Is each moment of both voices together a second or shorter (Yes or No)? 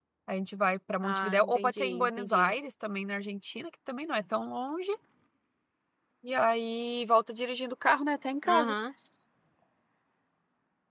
No